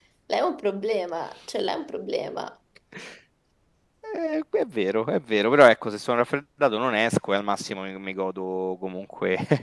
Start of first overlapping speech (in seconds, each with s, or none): none